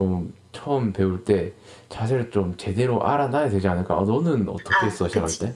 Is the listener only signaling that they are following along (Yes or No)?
No